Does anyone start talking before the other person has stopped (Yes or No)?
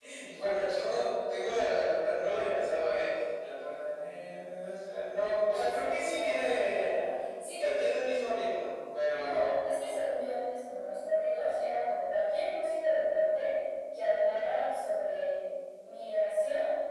Yes